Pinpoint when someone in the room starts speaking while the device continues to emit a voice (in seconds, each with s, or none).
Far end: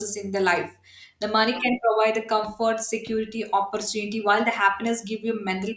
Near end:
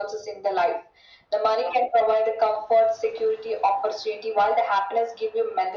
none